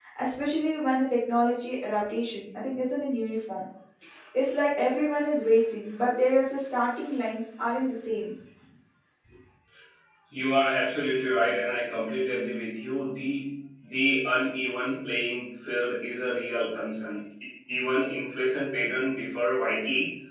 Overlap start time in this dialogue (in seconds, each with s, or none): none